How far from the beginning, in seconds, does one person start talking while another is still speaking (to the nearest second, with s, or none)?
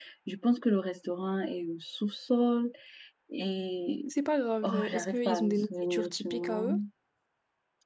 5 s